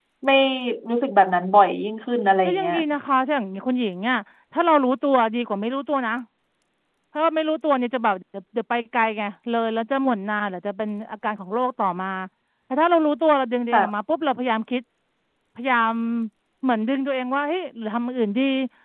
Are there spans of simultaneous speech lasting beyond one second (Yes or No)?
No